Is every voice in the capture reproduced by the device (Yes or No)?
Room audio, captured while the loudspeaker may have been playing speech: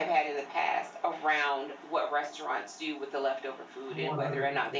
No